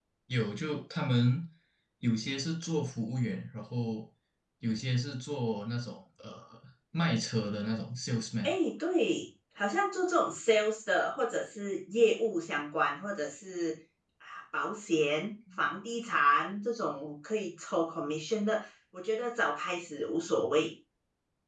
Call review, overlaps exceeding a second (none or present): none